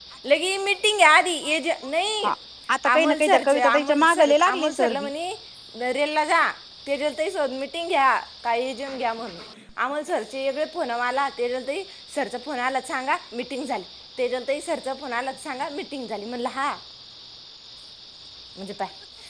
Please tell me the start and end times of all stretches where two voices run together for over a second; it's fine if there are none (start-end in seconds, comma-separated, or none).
2.9-5.1